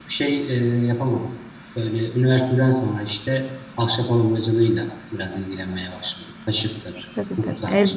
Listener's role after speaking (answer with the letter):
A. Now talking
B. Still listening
A